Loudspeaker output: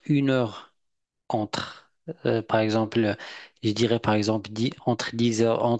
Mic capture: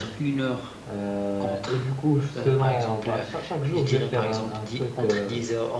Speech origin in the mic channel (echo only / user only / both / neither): both